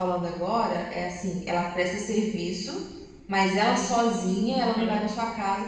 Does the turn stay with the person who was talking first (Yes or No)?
Yes